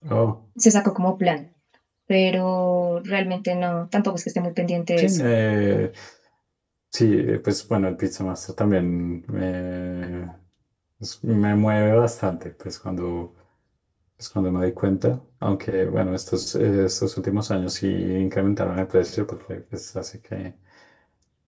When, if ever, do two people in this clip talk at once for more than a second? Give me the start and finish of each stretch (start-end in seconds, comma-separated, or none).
none